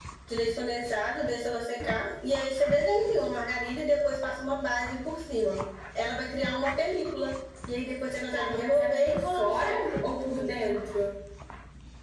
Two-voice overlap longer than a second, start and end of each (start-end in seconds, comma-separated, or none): 8.3-9.9